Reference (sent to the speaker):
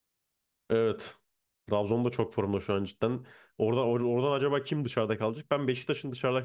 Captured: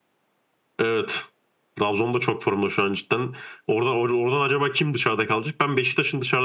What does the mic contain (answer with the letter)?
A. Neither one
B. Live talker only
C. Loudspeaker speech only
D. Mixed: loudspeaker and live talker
C